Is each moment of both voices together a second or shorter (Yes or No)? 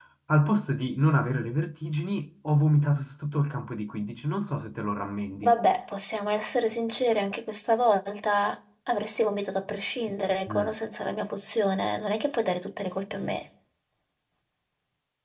Yes